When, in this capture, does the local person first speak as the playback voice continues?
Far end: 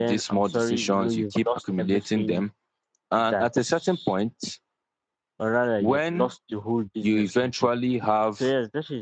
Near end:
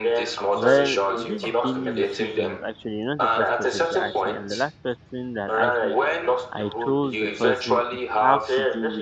0.5 s

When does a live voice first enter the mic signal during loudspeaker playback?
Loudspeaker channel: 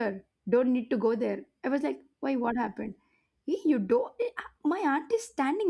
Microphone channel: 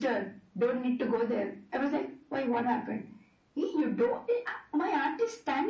none

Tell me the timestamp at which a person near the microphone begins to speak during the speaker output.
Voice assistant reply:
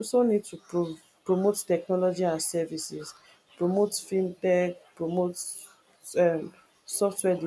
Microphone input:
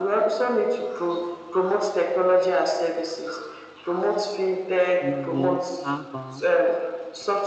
5.0 s

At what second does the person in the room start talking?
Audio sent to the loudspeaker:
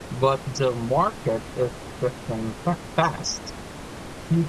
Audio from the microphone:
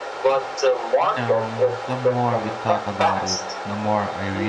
1.0 s

